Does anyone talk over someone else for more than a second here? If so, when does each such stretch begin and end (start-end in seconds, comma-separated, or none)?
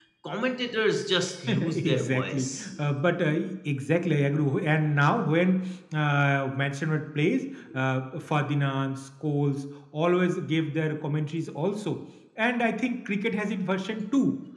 1.5-2.7